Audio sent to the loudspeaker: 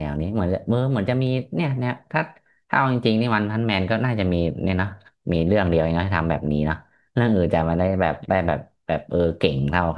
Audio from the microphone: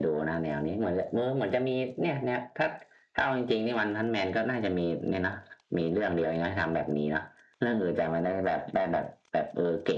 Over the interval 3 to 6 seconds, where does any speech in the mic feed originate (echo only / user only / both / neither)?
echo only